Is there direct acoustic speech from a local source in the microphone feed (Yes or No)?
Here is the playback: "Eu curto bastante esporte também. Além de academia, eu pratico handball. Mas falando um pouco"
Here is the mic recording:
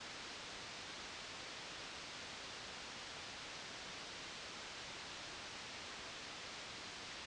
No